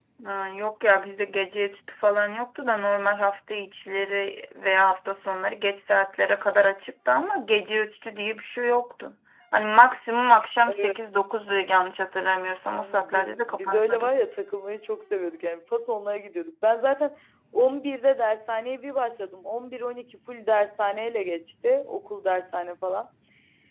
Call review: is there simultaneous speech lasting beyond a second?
Yes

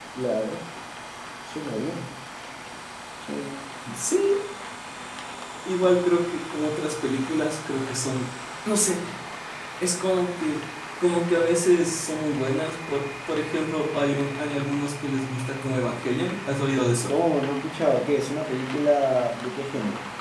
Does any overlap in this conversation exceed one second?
No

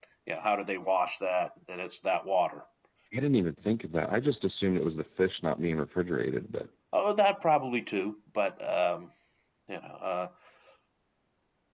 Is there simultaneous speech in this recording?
No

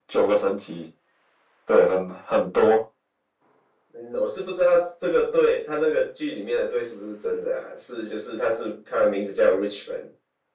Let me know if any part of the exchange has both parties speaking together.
No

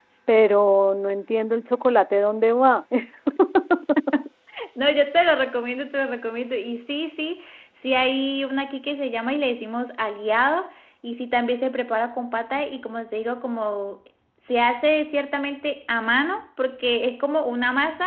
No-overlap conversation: Yes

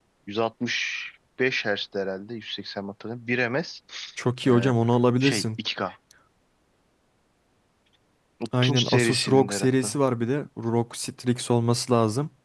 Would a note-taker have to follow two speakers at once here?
Yes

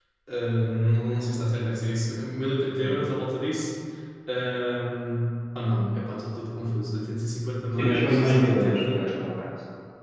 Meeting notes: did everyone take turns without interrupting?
No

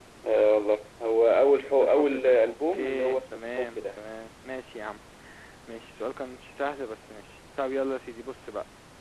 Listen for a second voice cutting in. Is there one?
Yes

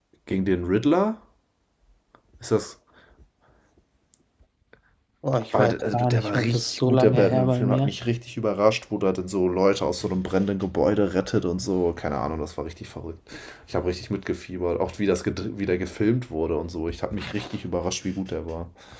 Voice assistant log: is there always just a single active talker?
No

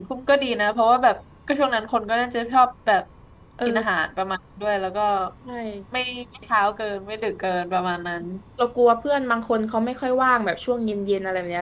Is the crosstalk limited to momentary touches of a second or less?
Yes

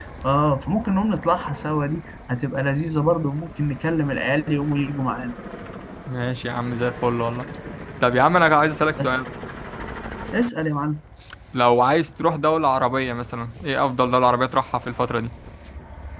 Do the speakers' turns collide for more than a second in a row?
No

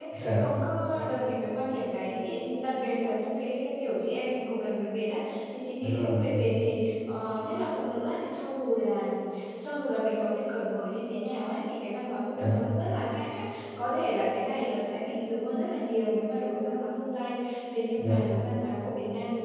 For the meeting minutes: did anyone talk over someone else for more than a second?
No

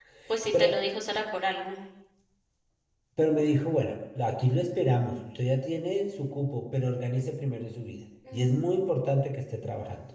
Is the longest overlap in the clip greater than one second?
No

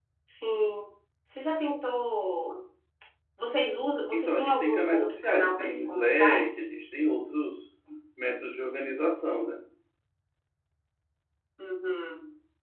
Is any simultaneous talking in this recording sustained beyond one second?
Yes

